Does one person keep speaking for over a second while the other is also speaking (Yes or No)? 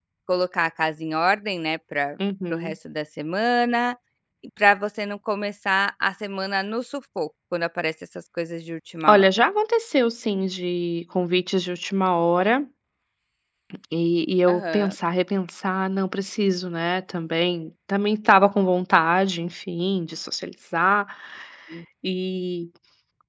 No